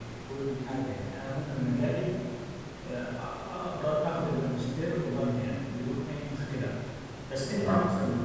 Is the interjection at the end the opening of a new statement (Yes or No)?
No